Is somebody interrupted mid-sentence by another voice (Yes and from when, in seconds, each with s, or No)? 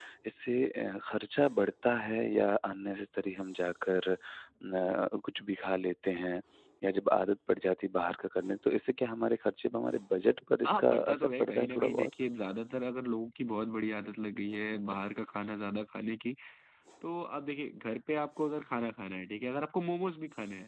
Yes, from 10.6 s